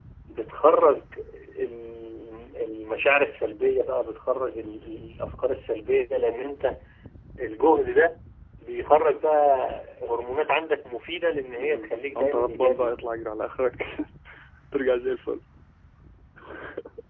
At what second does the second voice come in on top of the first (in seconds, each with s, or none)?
11.6 s